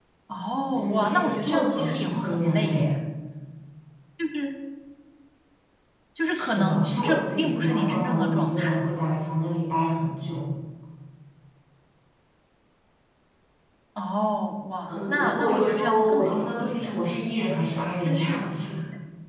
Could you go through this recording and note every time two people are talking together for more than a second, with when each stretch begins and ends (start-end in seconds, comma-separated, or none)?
0.7-2.9, 6.3-8.8, 14.9-16.9